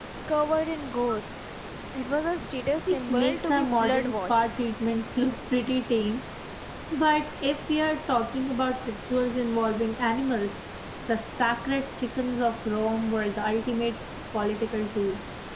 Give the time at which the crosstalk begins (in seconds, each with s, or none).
2.9 s